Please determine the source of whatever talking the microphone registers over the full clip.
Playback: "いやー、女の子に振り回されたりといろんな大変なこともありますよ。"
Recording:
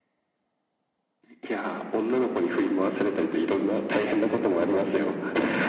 echo only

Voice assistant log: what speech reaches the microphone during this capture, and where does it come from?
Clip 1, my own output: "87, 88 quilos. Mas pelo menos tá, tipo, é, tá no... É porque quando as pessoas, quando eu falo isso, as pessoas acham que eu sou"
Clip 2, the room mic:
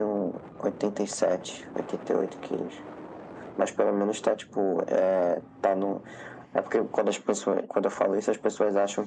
echo only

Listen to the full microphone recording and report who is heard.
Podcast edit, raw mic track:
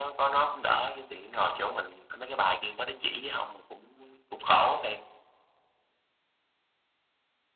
echo only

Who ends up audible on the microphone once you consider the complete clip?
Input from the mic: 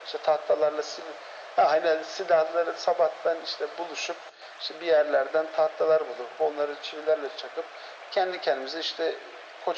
echo only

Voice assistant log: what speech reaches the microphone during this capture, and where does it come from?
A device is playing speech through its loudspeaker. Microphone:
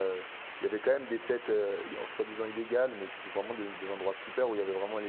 user only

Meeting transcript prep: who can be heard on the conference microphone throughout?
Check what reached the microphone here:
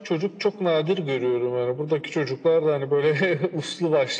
echo only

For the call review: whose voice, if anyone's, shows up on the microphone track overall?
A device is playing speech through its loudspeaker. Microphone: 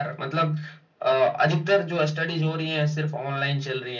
echo only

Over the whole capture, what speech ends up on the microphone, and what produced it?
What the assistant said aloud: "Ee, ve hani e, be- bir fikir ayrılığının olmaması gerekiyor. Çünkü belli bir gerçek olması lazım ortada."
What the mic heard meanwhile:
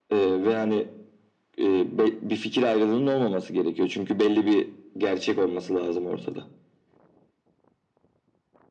echo only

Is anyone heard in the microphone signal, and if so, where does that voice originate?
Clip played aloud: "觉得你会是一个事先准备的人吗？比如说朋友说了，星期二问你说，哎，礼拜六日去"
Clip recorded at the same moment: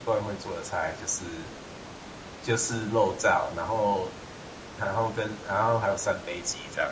user only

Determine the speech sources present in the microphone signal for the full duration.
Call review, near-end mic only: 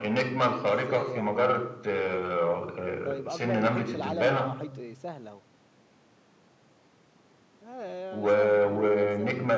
both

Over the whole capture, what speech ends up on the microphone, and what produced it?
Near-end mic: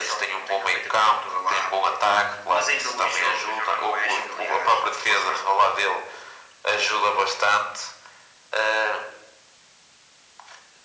echo only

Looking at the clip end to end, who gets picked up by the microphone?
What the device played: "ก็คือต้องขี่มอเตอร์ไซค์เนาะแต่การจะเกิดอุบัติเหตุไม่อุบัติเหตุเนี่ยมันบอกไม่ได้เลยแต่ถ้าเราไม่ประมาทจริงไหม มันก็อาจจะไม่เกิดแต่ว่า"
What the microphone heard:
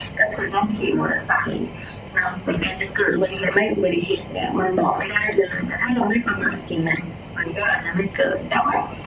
echo only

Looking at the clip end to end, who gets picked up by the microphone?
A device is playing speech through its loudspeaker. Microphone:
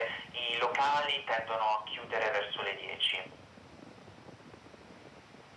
echo only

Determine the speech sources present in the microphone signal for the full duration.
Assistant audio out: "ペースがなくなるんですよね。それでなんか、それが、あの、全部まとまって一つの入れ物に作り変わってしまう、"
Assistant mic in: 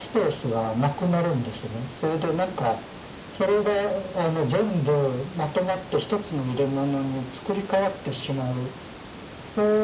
echo only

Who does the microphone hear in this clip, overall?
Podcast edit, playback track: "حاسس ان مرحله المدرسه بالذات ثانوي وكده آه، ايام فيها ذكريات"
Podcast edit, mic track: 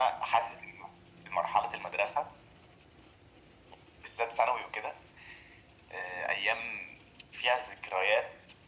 echo only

